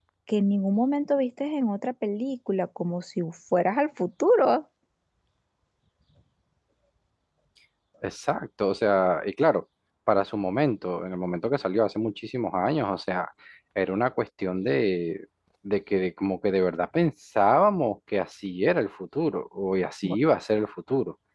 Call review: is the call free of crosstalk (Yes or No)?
Yes